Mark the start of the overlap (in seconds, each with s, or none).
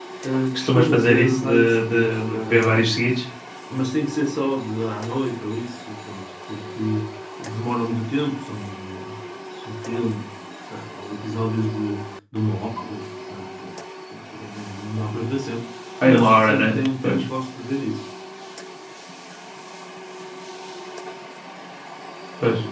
0.5 s